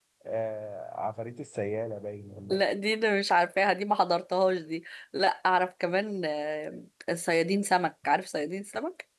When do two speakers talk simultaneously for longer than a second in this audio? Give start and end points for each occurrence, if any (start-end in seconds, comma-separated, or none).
none